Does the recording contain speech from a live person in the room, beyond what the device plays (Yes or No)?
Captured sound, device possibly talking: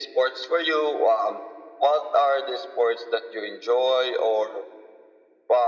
No